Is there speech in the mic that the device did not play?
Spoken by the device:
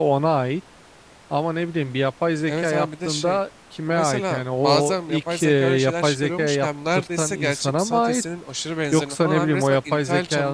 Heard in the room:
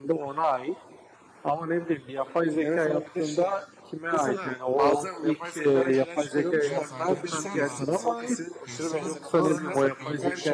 Yes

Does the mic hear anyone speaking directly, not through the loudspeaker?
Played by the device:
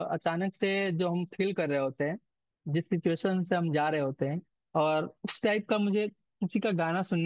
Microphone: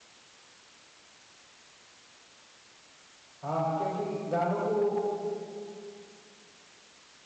Yes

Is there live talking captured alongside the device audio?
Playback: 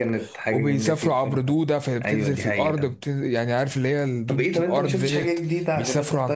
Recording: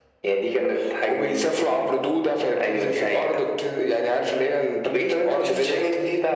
No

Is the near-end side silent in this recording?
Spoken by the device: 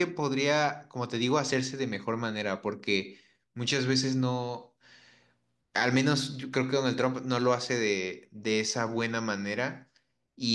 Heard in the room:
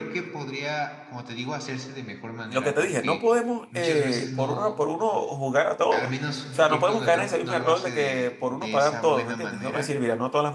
No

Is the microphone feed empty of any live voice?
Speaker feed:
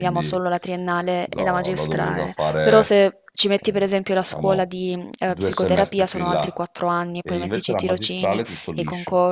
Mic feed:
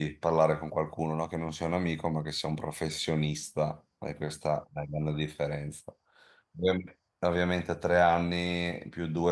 No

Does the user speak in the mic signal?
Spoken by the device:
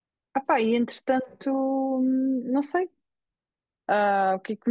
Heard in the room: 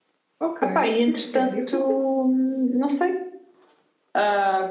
Yes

